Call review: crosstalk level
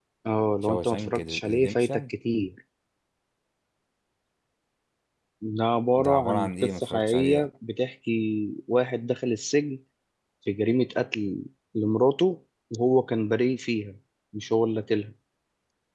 present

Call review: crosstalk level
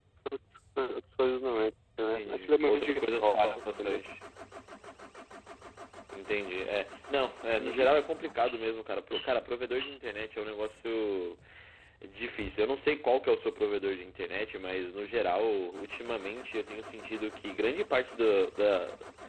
present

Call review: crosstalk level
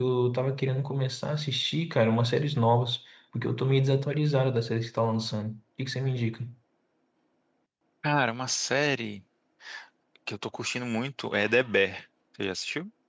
none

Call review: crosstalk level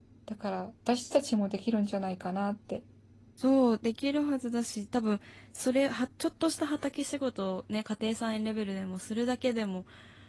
none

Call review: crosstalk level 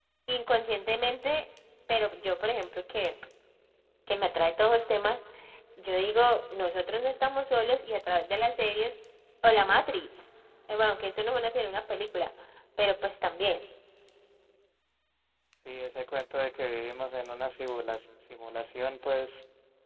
none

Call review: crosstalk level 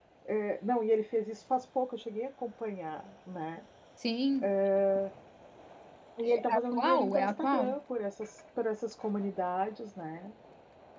present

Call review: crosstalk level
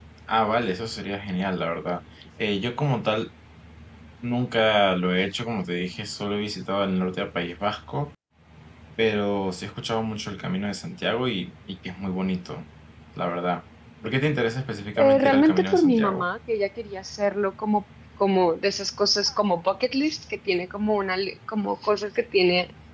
present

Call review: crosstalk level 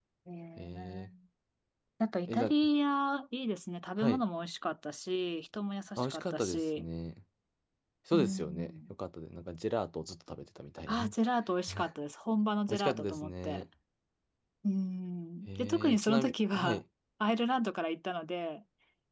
present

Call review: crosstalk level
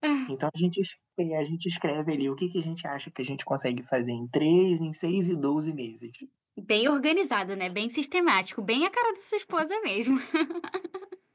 none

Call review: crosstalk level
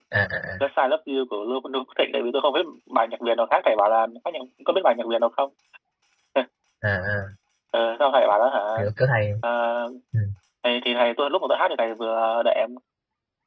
none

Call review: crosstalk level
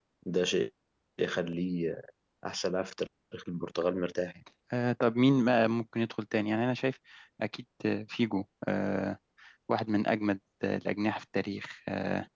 none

